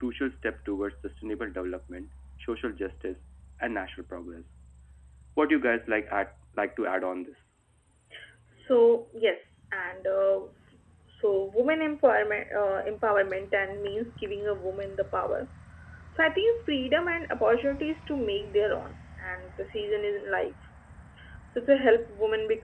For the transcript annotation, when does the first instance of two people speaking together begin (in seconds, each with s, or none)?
none